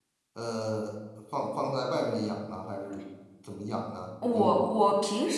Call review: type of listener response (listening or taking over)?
taking over